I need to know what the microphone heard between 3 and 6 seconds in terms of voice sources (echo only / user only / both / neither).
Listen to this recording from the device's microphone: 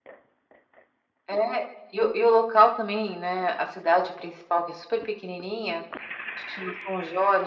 echo only